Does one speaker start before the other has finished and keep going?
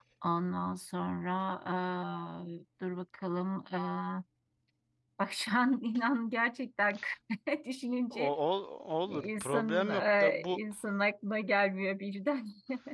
Yes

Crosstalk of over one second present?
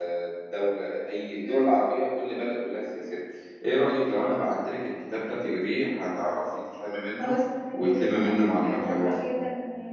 Yes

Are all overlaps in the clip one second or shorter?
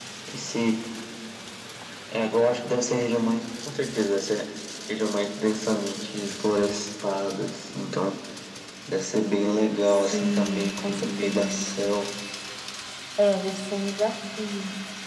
No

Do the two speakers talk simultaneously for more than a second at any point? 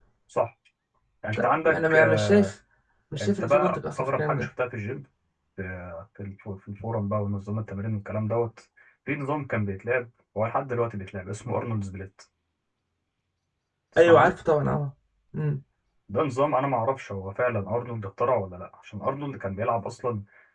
Yes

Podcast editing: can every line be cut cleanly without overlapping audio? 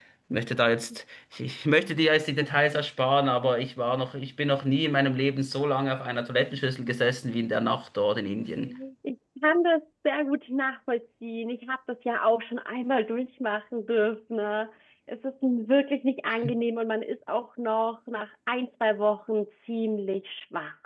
Yes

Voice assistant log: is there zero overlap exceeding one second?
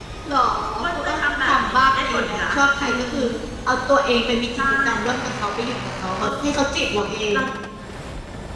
No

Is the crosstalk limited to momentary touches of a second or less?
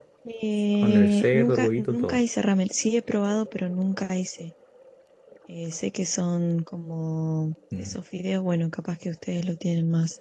No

